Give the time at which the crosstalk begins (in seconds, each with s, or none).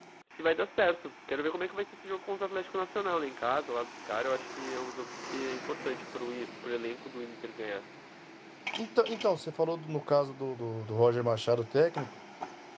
none